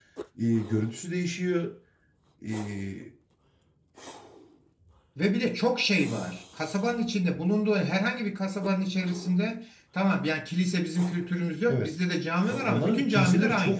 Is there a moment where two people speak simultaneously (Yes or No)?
Yes